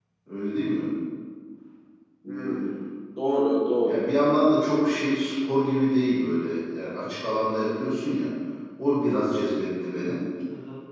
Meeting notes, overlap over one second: none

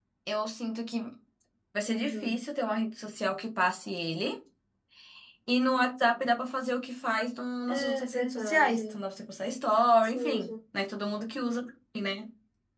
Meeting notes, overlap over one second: present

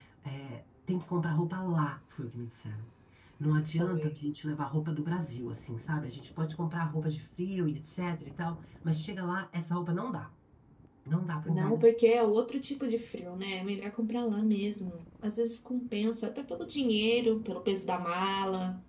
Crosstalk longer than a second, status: none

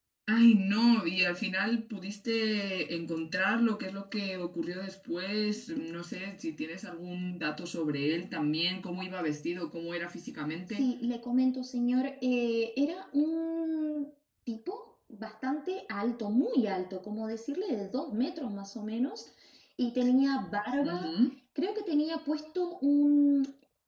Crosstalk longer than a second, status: none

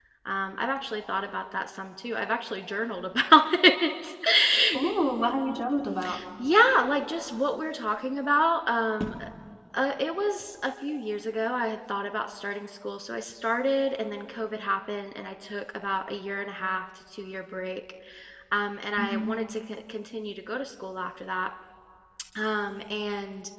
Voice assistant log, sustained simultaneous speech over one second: none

